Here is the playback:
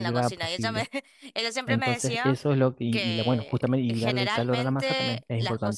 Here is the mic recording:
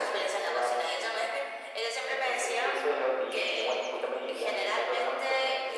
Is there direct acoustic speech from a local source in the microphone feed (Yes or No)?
No